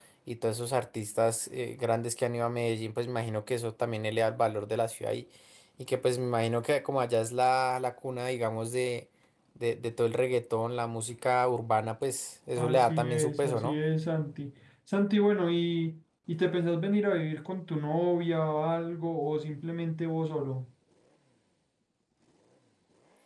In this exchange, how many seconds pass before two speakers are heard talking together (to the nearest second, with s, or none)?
13 s